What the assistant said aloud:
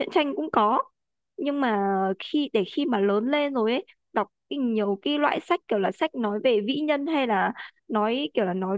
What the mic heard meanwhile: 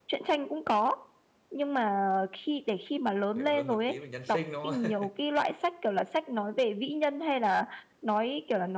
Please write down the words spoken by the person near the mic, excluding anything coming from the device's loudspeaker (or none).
hiểu hơn một tí về nhân sinh đúng không